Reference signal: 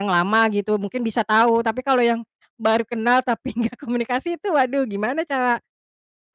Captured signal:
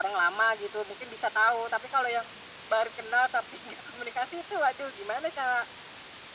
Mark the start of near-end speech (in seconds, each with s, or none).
none